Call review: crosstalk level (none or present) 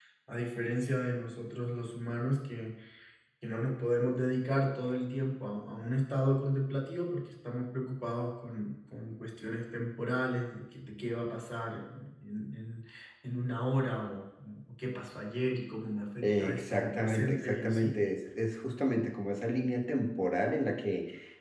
present